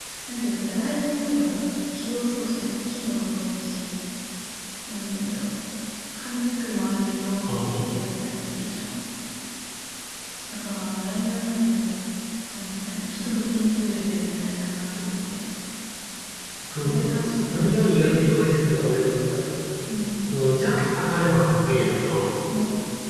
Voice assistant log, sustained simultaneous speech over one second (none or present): present